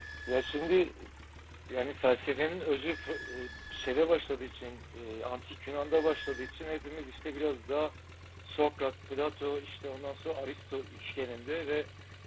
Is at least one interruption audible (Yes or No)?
No